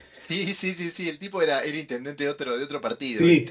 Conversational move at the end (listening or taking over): taking over